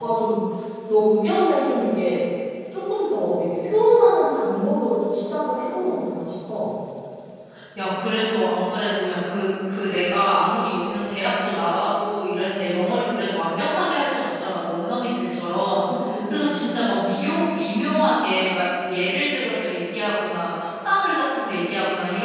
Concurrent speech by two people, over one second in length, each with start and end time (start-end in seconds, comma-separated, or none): none